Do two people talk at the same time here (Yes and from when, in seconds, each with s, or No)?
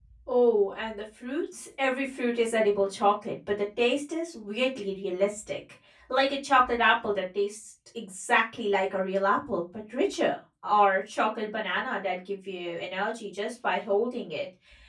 No